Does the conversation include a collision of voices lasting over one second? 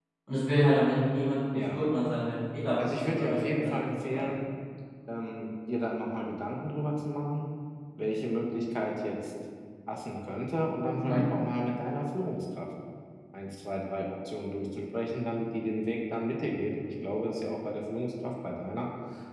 Yes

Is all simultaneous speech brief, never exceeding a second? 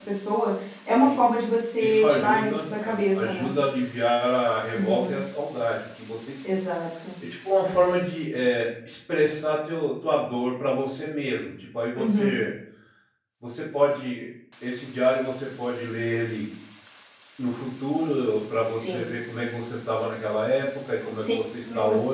No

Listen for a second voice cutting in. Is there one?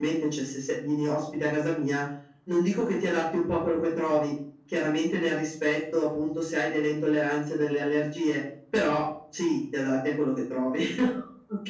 No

